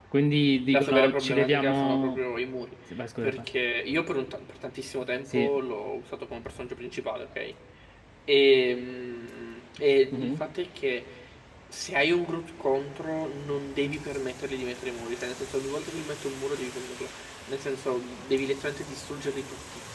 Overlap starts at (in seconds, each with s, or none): 0.7 s